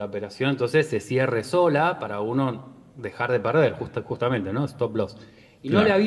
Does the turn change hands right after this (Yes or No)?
No